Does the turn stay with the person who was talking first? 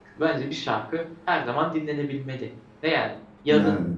Yes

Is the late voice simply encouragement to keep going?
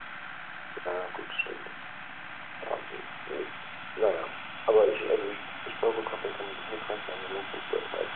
No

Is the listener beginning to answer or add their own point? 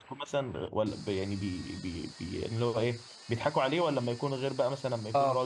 No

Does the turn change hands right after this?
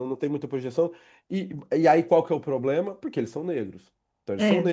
No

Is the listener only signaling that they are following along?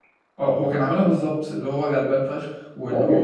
No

